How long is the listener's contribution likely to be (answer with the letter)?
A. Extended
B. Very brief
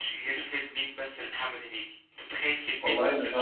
B